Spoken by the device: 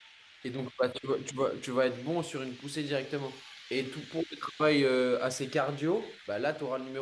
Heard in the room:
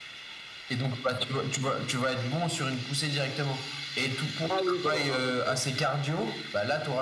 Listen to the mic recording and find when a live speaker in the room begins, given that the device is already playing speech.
4 s

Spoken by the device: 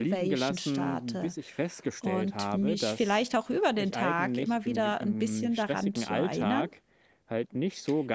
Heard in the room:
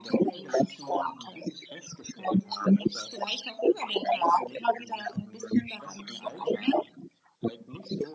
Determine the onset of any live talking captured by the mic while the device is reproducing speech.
none

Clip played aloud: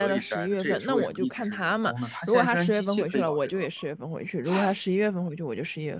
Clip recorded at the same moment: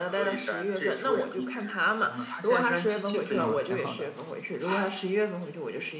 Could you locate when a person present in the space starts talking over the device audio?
3 s

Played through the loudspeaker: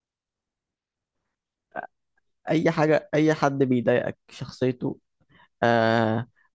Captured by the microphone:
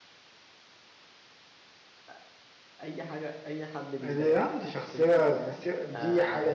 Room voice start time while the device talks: 4 s

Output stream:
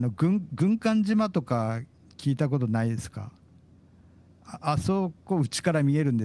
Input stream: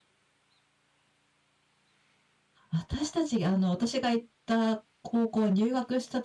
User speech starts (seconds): 3 s

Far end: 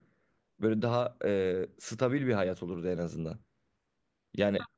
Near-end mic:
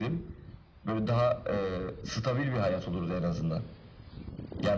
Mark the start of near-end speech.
none

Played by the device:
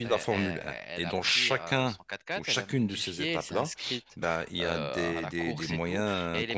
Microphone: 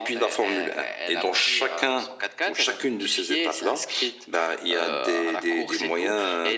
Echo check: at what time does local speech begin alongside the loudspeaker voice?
none

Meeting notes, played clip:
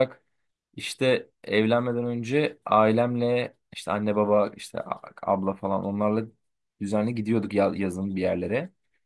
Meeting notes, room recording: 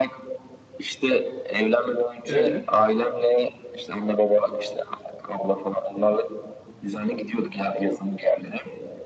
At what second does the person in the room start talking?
2 s

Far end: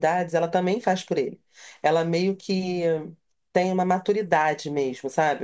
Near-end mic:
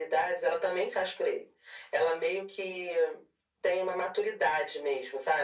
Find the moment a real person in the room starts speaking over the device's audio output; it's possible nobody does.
none

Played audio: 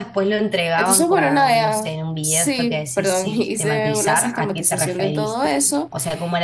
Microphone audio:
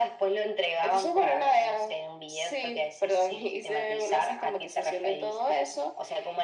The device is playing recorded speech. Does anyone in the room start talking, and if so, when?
none

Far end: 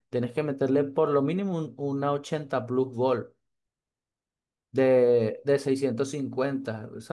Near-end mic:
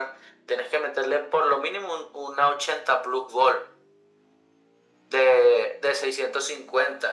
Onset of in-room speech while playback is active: none

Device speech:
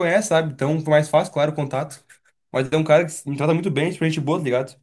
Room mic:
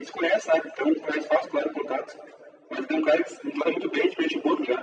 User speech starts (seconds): none

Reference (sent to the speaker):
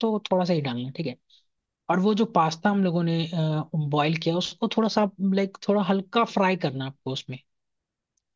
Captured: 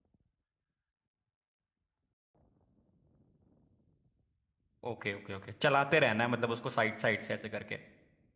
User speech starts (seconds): 5 s

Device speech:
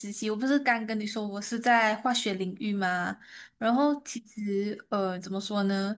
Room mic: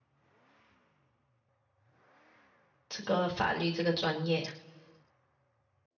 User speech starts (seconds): 3 s

